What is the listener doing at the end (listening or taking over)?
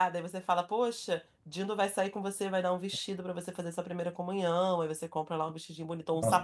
listening